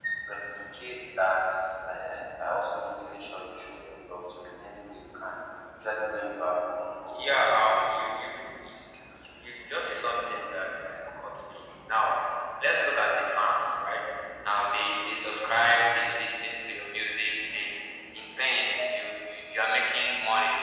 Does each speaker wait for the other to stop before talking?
No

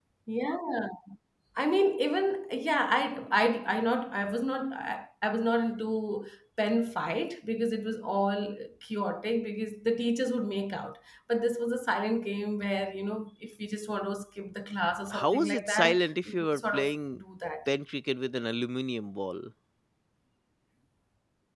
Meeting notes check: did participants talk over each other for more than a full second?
Yes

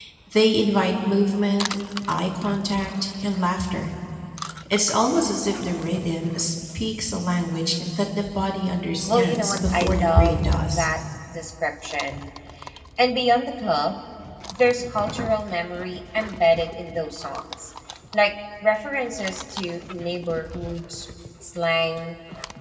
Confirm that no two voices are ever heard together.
No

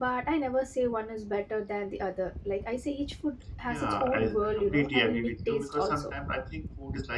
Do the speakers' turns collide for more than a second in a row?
Yes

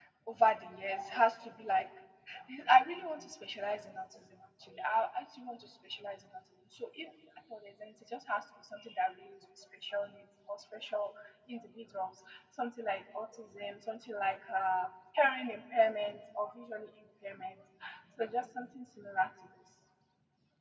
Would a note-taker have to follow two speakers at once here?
No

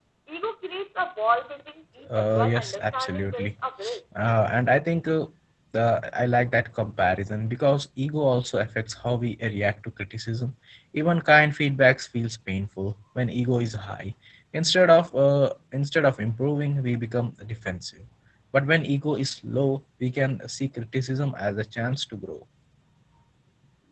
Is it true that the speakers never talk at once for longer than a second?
No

